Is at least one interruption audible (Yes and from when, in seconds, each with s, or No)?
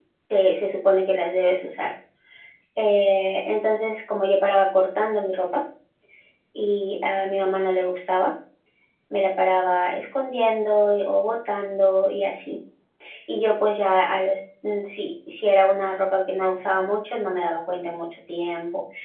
No